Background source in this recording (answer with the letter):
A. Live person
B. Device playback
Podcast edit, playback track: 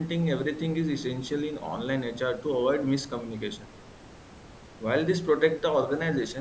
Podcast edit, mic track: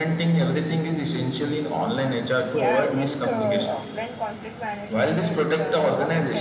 A